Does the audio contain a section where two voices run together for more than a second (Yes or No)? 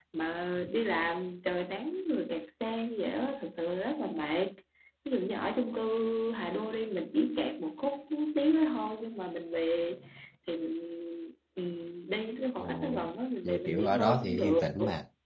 Yes